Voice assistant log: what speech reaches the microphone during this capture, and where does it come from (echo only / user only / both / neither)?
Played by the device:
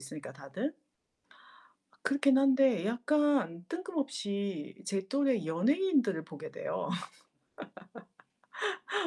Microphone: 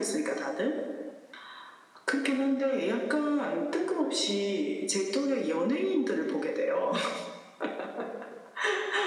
echo only